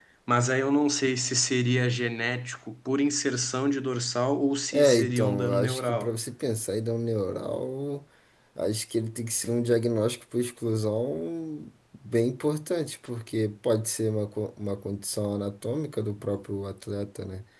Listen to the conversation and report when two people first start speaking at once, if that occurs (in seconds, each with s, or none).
4.7 s